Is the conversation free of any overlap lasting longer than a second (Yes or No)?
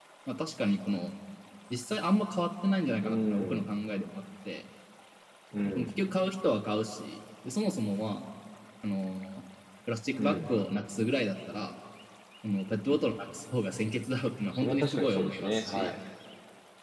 No